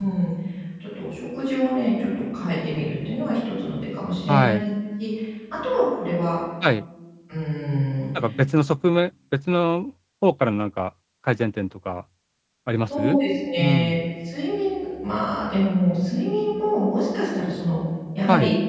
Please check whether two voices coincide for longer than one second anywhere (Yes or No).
No